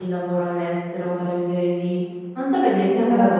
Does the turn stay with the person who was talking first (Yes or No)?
Yes